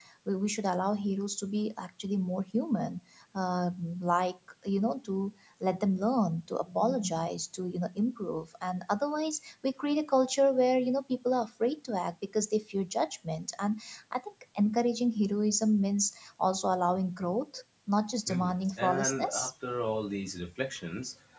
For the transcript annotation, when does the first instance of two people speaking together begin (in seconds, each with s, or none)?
18.3 s